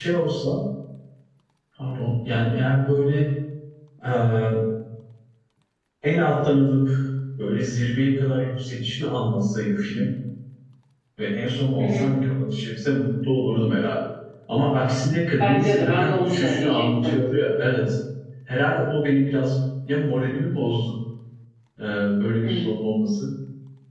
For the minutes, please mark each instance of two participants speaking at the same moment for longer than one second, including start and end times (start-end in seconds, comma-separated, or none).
15.4-17.2